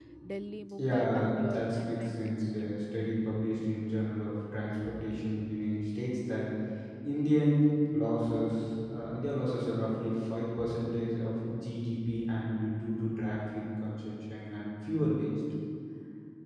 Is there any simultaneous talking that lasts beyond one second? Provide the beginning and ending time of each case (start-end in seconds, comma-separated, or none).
0.8-2.7